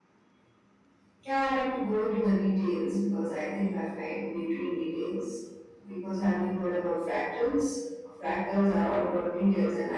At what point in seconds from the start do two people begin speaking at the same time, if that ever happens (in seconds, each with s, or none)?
none